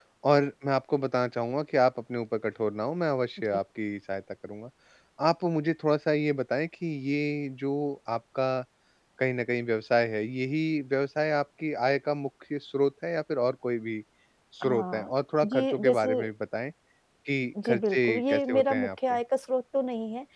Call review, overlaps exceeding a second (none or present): present